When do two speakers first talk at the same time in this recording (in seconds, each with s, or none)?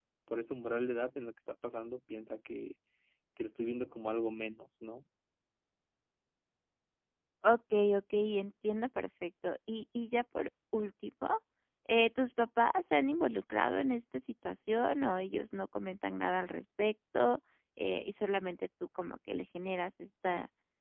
none